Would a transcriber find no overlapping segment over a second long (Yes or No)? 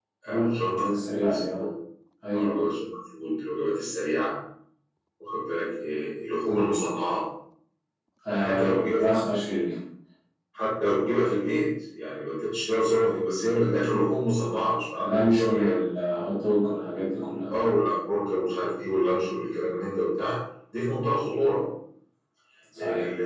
No